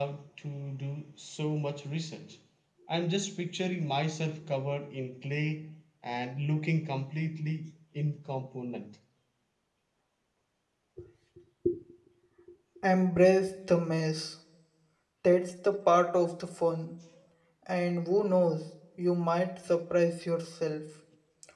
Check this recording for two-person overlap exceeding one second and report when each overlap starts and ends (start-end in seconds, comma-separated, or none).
none